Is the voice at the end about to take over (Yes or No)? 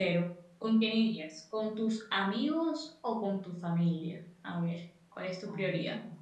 Yes